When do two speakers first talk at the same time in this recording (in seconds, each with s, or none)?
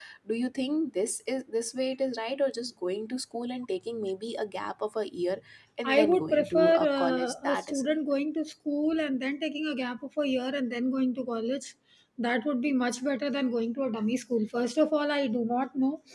5.8 s